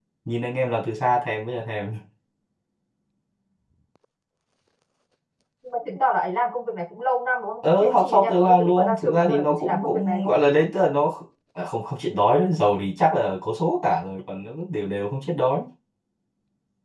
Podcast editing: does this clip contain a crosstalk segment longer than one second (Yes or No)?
Yes